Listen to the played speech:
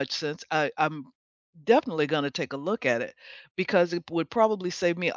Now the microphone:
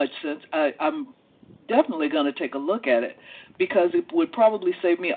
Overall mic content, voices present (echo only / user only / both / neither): echo only